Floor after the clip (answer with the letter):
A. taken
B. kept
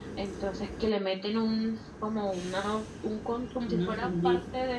B